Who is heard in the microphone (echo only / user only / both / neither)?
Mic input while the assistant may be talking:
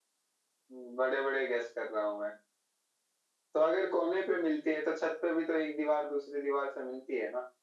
echo only